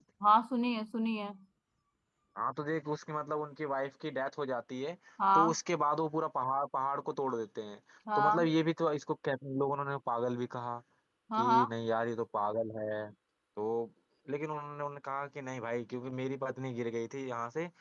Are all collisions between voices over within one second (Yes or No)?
Yes